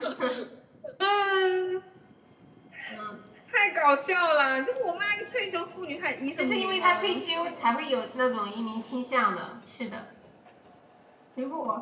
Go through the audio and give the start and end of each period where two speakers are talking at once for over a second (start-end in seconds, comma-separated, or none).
6.4-7.7